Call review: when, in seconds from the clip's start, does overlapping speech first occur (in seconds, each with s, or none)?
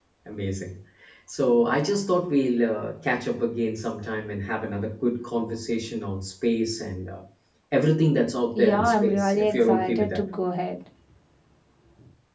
8.6 s